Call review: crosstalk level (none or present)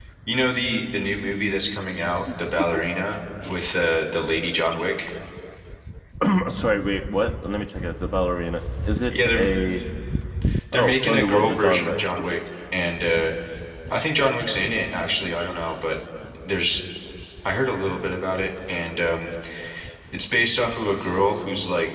present